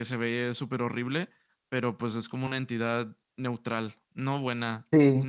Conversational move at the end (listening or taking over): taking over